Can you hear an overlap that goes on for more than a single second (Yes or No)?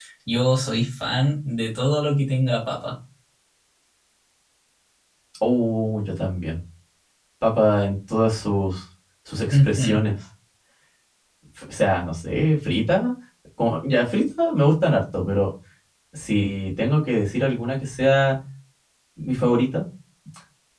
No